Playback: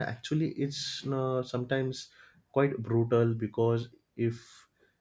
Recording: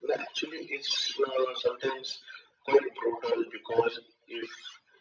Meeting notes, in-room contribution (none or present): none